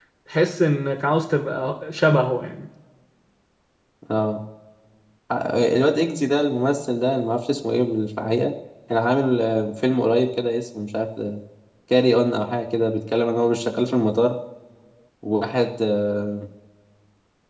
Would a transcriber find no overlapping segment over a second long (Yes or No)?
Yes